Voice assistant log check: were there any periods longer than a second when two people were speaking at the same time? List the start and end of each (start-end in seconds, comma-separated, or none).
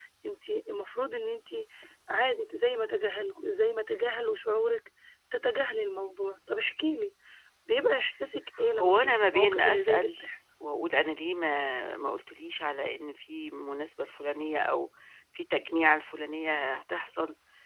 8.8-10.1